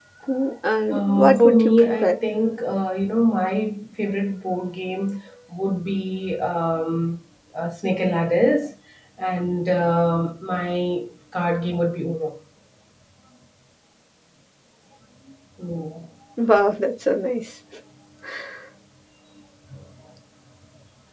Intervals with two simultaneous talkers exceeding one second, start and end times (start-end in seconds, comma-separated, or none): 0.9-2.1